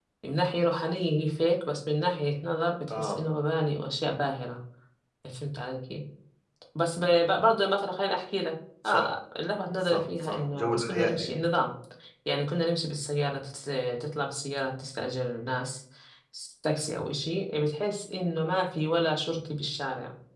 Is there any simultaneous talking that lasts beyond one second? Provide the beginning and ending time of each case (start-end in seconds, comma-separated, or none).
9.8-11.3